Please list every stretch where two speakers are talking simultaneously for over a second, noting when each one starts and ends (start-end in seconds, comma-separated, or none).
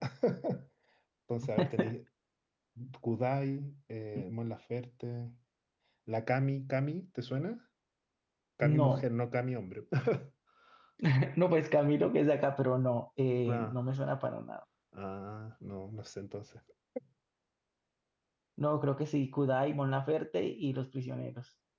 none